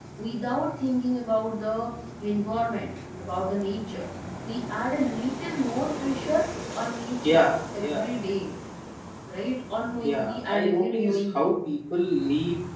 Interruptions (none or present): present